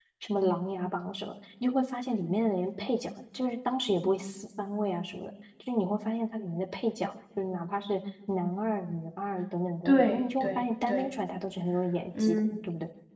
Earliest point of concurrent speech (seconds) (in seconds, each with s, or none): 9.8 s